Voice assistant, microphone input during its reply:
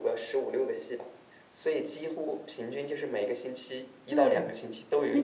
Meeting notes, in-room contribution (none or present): present